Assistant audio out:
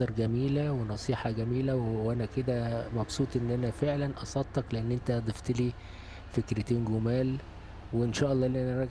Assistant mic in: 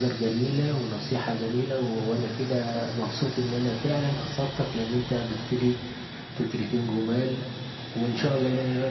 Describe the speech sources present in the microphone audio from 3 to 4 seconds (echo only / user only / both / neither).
echo only